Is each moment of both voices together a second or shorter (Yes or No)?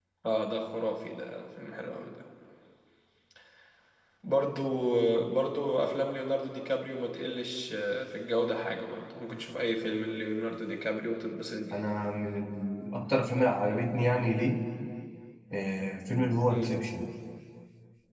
Yes